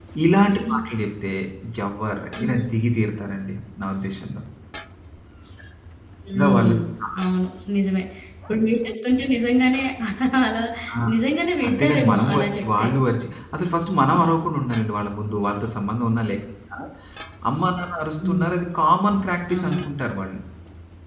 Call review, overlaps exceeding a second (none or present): present